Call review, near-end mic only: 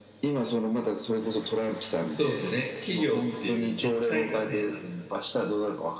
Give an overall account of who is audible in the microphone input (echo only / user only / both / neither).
both